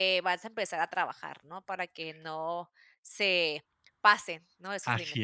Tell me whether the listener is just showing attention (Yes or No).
No